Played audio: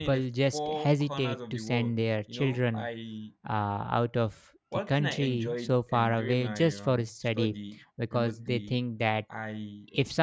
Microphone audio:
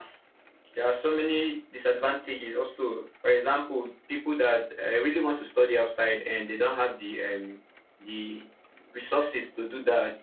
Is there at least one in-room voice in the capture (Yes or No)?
Yes